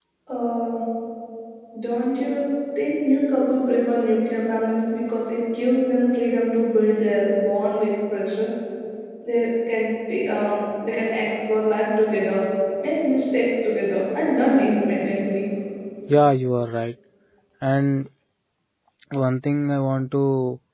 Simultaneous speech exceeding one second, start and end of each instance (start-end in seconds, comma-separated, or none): none